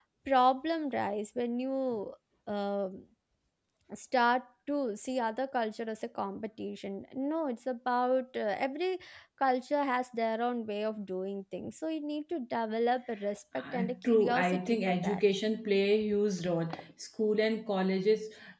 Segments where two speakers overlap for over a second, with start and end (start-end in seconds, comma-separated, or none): 13.6-15.2